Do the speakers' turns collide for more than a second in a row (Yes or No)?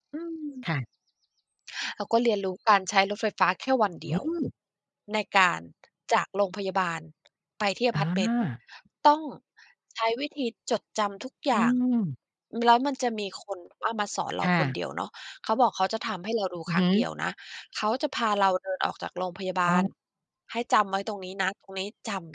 No